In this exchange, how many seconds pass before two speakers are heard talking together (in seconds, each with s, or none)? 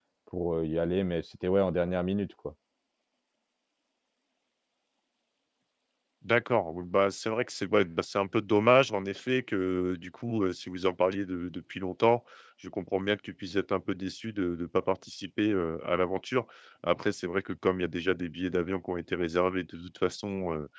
none